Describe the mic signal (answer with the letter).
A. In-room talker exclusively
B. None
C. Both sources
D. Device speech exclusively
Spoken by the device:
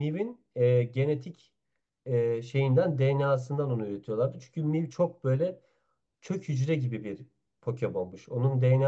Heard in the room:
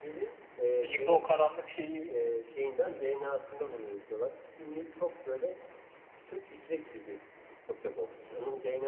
C